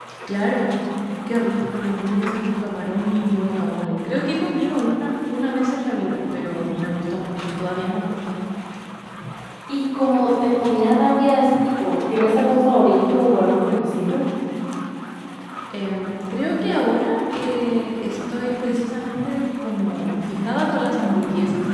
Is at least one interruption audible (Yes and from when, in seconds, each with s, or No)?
No